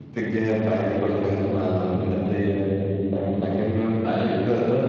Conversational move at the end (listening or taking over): listening